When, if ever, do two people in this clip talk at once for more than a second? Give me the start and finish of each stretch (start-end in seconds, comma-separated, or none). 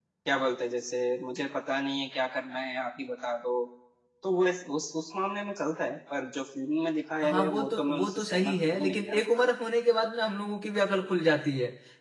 7.2-9.2